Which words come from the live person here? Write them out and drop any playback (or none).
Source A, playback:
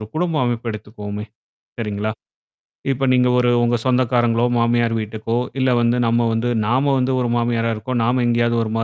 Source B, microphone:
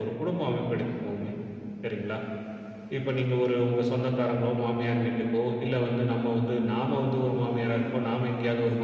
none